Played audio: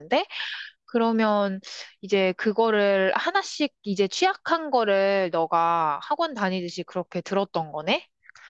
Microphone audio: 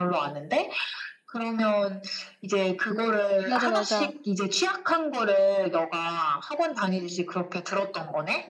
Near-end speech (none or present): present